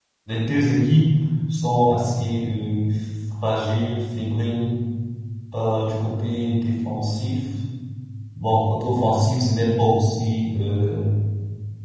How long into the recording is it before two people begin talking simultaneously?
none

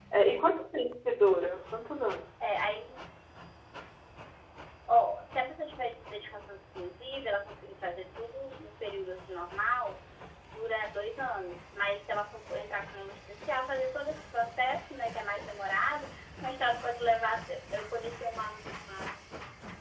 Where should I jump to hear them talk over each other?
none

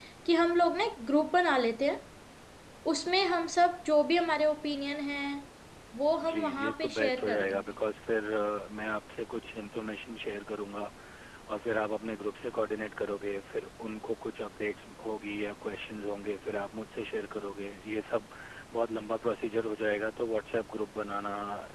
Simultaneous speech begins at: 6.3 s

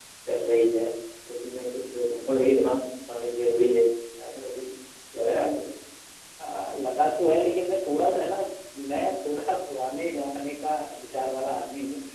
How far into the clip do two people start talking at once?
none

